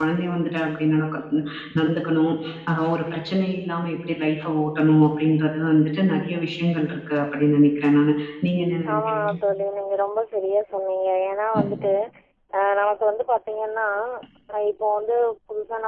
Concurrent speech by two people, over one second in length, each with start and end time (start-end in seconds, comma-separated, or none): none